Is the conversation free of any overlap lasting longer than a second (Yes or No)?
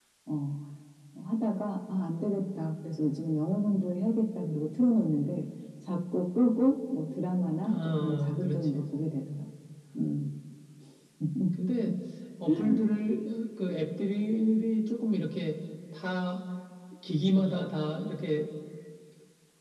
No